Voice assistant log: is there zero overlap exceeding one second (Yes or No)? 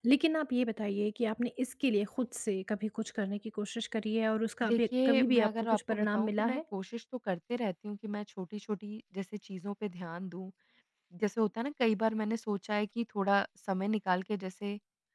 No